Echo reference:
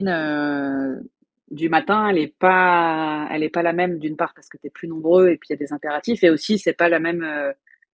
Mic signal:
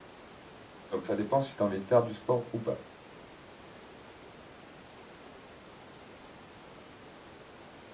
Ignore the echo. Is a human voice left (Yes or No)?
Yes